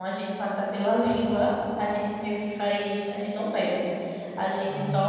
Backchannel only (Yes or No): Yes